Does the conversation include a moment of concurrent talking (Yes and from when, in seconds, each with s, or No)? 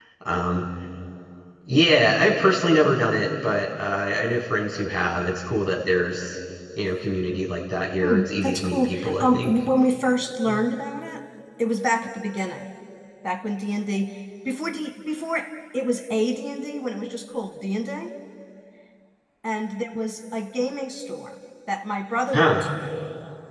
Yes, from 8.0 s